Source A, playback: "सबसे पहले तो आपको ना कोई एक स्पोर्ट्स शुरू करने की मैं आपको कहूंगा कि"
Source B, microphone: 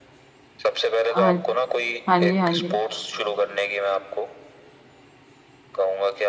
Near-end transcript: हाँ हाँ जी हाँ जी

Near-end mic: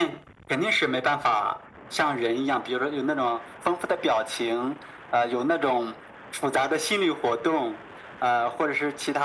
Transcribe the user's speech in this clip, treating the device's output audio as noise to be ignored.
none

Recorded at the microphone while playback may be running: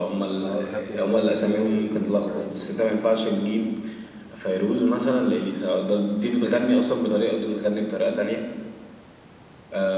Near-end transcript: اه بحب الار ام بي قوي والراب برضو

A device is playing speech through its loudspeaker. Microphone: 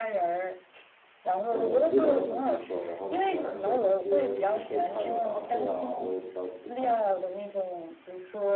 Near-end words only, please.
呃，味道也很独特，然后里面的那些这个配菜的搭配啊，我也比较喜欢。

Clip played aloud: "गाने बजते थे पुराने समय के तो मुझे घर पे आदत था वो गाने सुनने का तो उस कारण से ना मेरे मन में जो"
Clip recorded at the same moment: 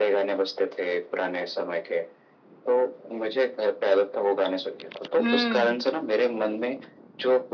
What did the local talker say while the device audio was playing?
हम्म,

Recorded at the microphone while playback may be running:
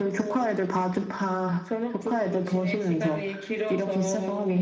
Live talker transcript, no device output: none

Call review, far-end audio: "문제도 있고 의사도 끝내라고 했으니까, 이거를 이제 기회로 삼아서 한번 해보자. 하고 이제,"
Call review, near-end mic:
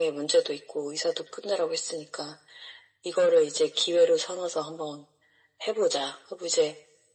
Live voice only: none

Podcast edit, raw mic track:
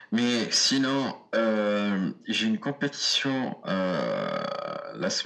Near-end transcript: none

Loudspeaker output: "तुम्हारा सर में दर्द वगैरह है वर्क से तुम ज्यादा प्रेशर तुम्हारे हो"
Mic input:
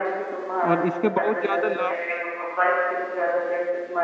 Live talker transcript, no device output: और इसके बहुत ज़्यादा लाभ

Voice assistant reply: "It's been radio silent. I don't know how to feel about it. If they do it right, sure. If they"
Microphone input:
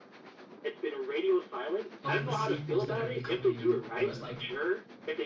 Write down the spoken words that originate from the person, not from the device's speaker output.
of the sequels that have been coming in the West. Like,

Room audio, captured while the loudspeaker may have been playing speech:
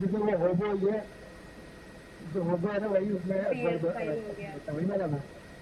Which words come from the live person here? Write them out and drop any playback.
पियर फाइल हो गया

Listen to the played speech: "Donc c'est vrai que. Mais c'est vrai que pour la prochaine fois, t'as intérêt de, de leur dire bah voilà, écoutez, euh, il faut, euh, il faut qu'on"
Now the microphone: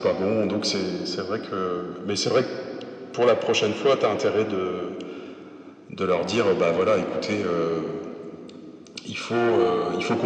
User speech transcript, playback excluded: none

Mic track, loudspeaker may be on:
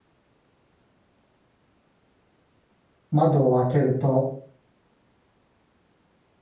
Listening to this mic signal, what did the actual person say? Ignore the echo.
窓を開けると、

